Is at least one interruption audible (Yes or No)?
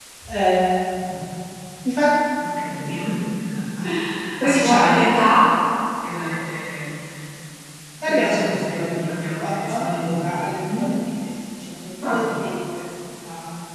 Yes